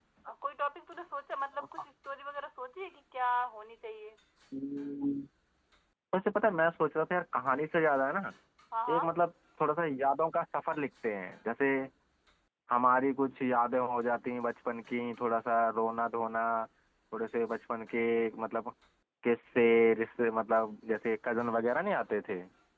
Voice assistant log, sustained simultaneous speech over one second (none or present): none